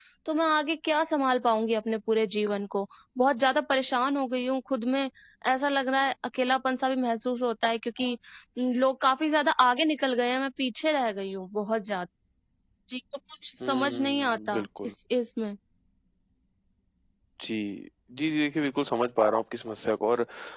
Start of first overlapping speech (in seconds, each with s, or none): 13.6 s